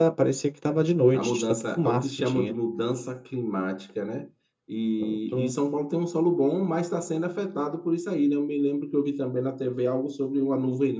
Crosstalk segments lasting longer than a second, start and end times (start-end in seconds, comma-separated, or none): 1.1-2.5